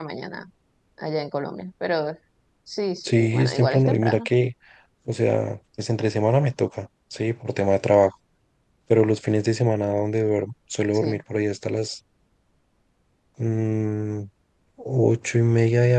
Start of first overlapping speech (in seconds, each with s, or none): 3.0 s